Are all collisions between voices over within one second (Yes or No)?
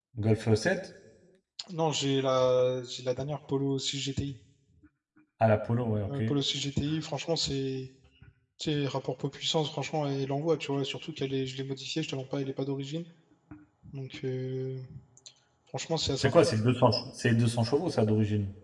Yes